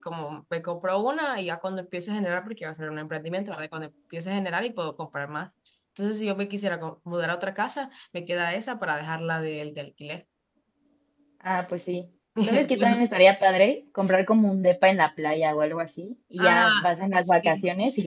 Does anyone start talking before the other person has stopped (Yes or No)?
Yes